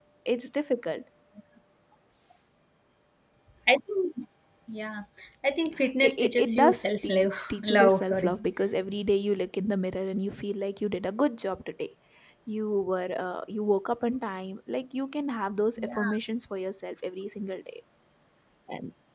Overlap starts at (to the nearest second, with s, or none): 6 s